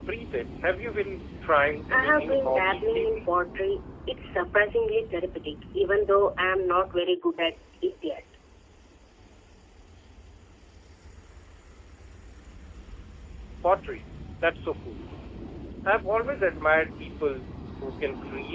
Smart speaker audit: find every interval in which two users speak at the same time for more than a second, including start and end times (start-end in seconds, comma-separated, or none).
1.9-3.3